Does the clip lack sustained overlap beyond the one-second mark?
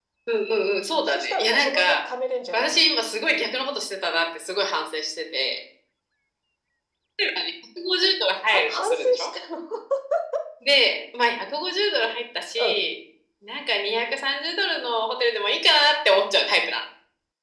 No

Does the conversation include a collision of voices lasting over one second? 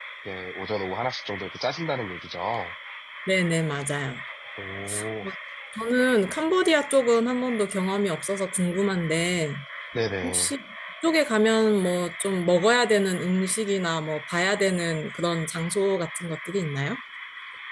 No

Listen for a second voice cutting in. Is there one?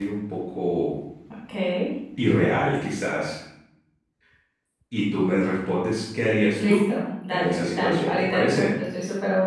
Yes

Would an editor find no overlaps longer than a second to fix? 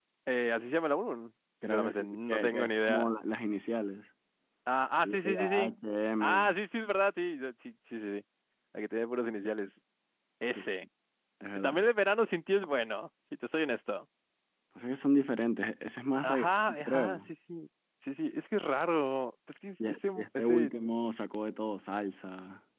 No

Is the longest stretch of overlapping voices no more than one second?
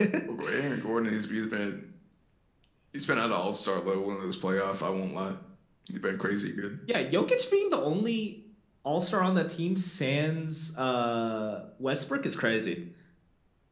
Yes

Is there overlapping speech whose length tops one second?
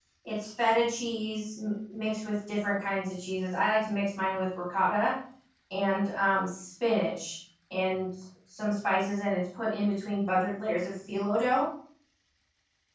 No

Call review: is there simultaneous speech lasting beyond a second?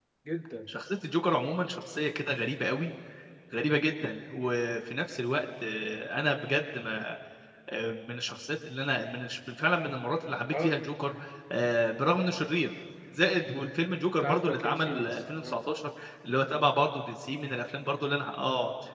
Yes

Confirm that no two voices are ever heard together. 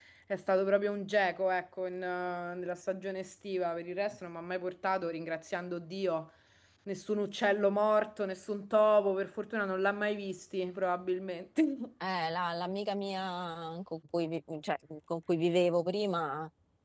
Yes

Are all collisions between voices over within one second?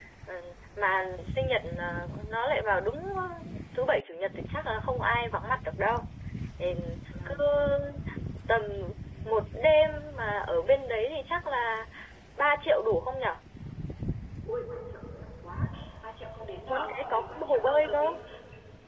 No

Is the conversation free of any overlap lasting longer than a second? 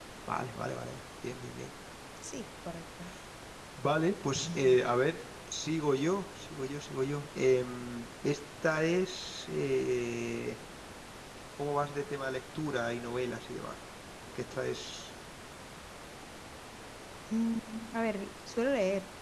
Yes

